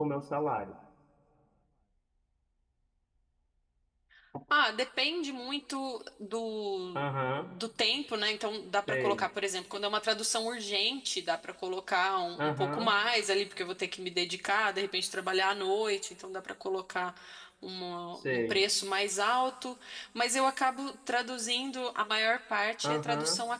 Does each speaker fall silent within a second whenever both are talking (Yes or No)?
Yes